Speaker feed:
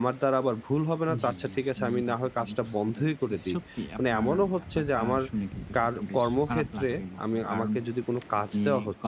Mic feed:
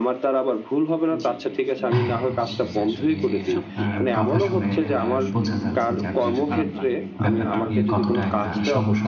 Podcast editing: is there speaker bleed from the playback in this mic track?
Yes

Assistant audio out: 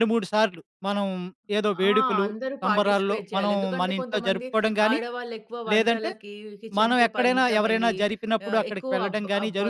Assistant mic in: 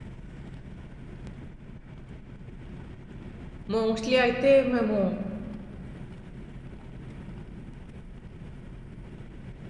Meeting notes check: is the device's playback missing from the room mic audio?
Yes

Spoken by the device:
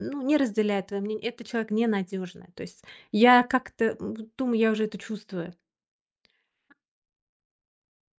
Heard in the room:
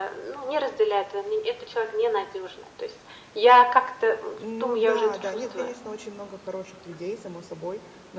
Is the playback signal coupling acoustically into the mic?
Yes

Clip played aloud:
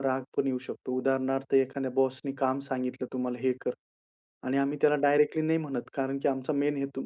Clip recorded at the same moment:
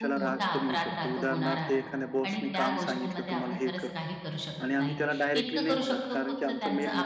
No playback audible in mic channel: No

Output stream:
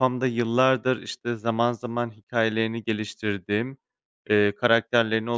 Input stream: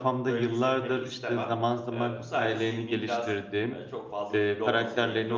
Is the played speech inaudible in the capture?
No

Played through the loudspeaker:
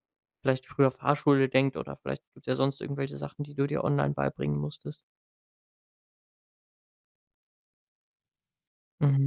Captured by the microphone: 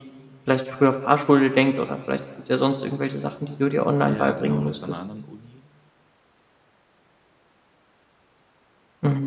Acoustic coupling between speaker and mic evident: Yes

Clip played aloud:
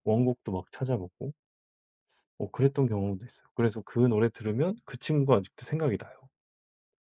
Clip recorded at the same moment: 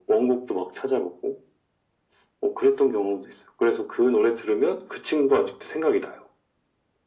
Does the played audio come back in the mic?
Yes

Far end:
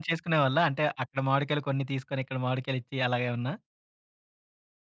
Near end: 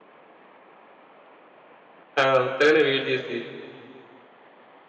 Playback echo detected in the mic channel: No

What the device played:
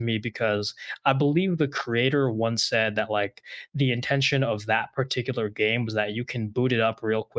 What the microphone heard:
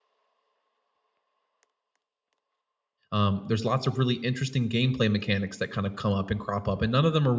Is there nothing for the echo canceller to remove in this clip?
Yes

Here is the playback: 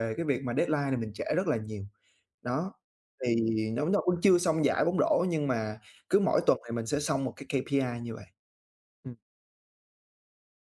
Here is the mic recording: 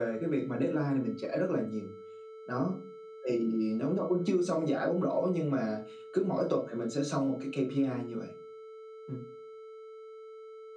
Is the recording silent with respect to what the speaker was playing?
No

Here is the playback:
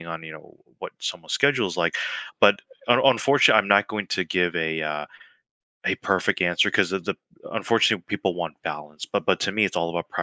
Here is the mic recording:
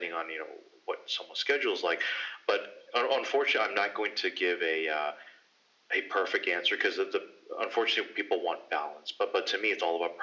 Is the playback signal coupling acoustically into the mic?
Yes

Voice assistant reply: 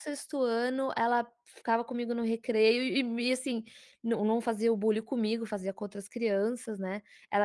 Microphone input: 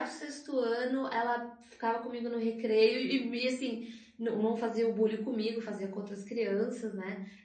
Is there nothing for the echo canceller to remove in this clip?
No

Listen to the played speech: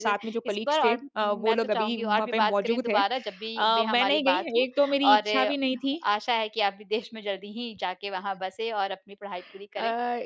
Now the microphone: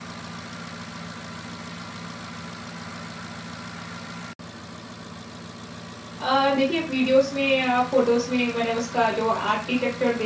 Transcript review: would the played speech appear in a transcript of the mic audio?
No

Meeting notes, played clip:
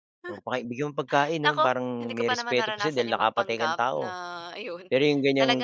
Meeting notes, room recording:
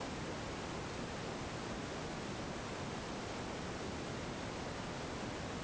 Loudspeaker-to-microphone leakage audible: No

